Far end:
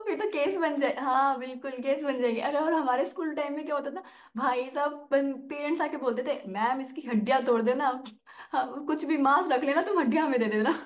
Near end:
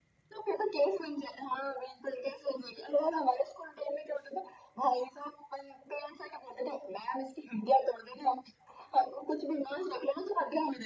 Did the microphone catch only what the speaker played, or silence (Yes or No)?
Yes